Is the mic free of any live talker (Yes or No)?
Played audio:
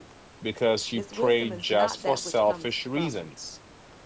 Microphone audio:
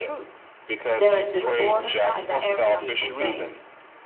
No